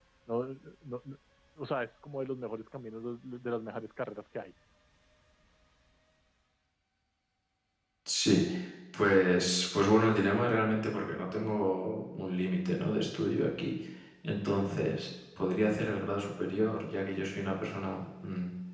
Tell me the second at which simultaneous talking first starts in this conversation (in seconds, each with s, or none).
none